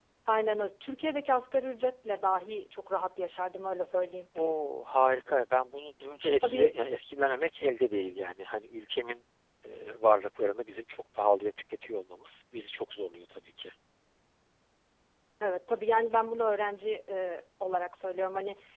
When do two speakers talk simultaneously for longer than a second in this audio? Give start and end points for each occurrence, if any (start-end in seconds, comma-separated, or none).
none